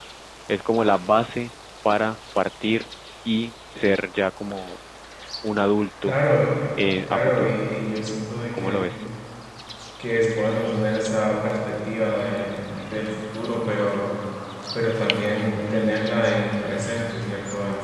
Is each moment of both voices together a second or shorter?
Yes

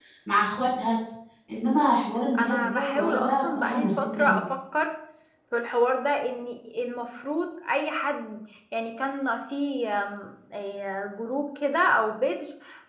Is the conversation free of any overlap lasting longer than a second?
No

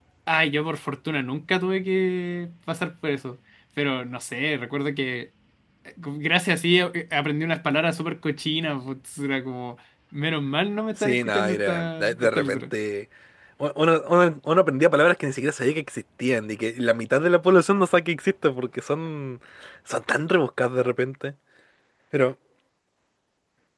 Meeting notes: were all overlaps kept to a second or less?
No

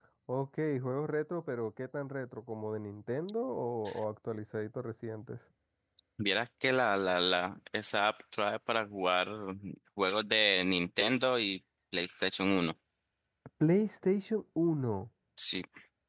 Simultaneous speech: No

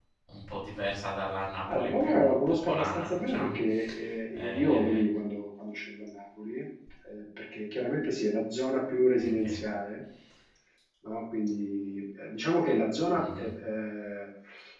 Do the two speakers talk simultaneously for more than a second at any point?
Yes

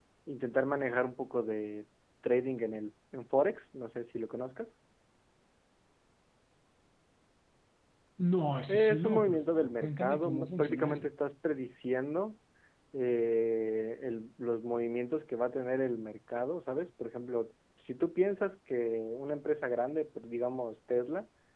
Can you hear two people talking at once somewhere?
Yes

